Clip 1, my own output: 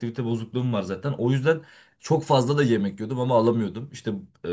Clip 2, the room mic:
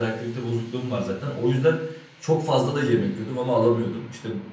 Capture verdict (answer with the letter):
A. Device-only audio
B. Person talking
A